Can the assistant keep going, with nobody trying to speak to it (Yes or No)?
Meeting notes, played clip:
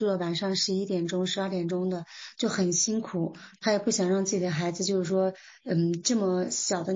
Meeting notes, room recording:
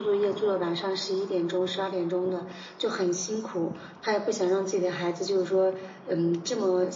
Yes